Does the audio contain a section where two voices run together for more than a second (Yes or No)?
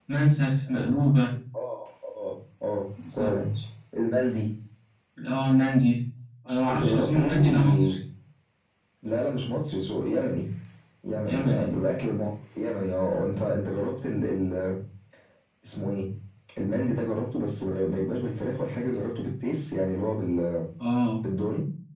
Yes